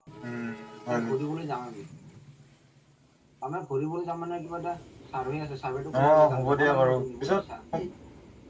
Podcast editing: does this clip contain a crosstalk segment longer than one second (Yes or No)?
Yes